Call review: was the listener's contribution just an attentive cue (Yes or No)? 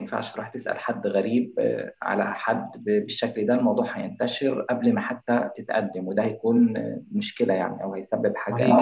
No